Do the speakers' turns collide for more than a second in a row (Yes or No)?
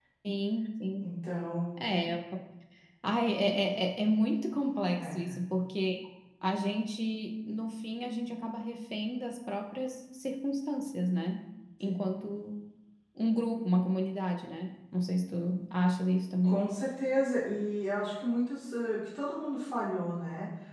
No